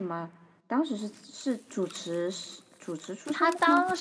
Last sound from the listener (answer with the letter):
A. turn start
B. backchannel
A